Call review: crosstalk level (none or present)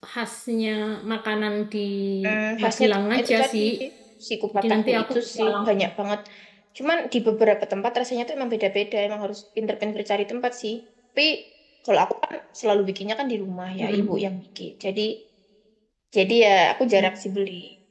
present